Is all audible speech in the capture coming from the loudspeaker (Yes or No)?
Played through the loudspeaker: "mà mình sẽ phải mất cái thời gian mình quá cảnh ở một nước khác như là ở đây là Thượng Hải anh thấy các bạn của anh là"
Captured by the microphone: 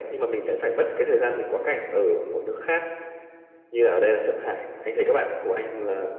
Yes